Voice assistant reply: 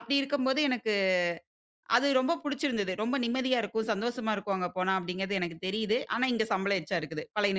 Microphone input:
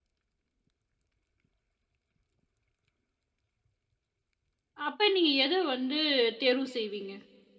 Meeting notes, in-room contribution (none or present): present